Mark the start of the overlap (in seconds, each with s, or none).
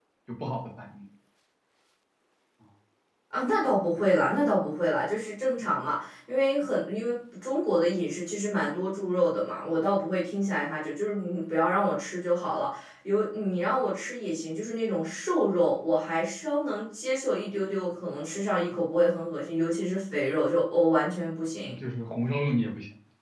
none